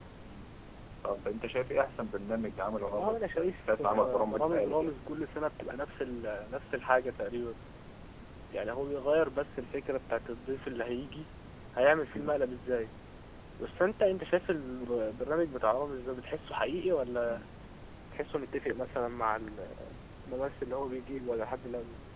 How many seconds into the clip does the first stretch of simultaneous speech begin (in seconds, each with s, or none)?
2.8 s